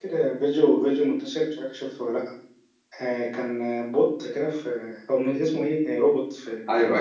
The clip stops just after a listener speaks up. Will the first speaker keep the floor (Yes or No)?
No